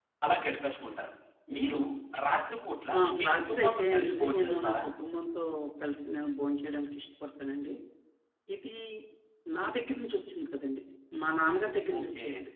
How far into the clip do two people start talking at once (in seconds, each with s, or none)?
3.0 s